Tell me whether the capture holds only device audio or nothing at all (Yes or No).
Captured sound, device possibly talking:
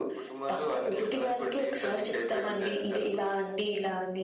Yes